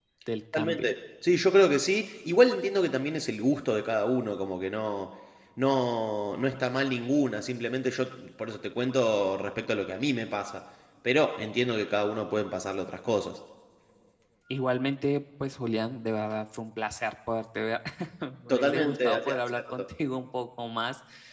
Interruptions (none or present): present